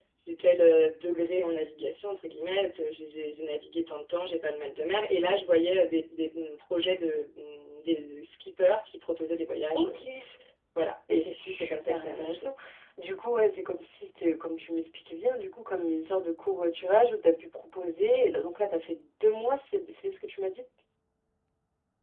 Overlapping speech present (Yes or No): Yes